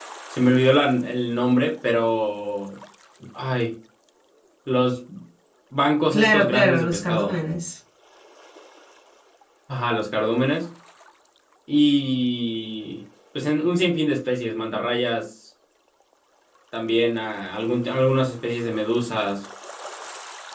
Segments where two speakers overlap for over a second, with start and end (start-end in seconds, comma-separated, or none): 6.1-7.4